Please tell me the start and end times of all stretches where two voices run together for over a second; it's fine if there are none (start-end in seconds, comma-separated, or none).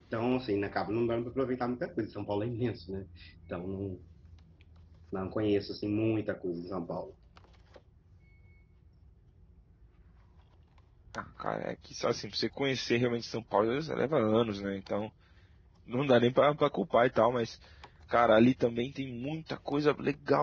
none